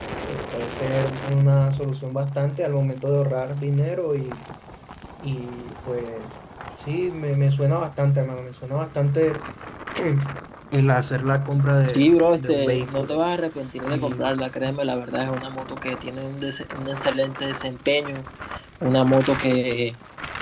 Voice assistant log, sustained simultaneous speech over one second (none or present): present